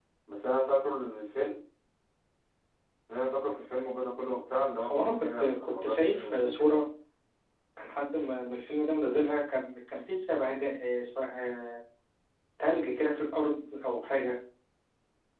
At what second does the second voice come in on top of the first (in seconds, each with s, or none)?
4.8 s